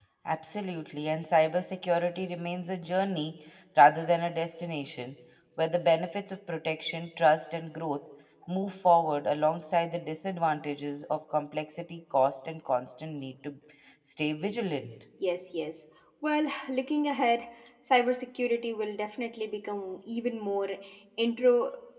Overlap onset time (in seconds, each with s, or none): none